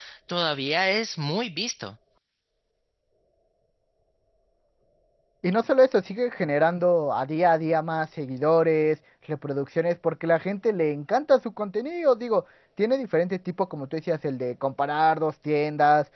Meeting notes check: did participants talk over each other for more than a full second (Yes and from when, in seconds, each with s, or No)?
No